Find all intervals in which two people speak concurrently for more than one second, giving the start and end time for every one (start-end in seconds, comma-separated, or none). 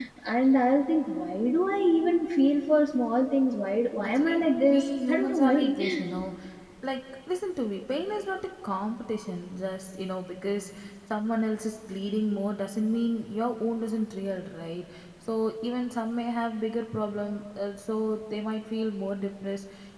4.0-5.7